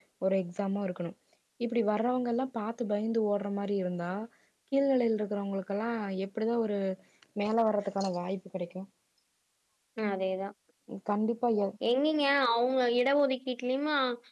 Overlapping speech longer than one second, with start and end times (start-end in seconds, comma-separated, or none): none